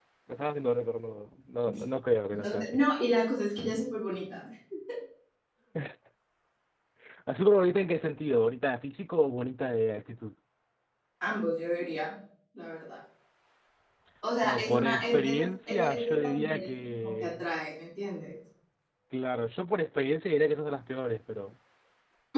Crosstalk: present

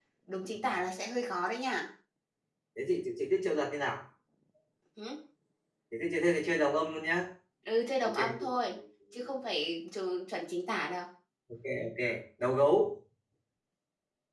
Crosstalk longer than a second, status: none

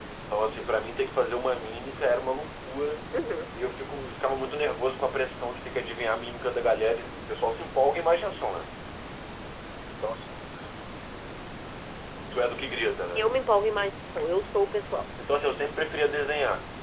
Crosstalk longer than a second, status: none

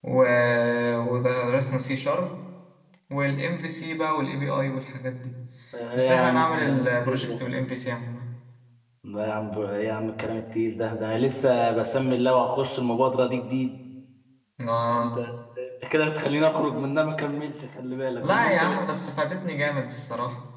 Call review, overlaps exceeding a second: present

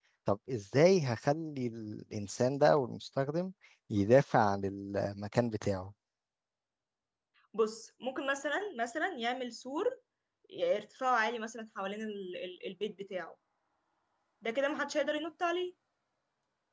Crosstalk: none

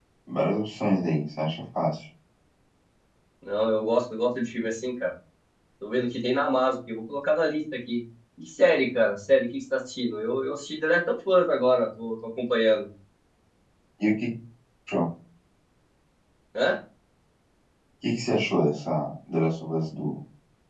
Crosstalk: none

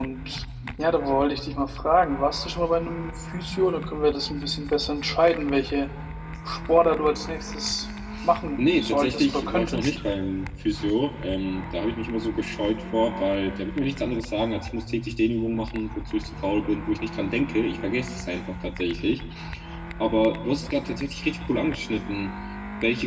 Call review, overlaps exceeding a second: present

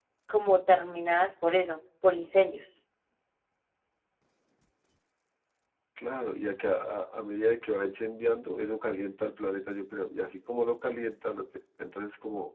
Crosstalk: none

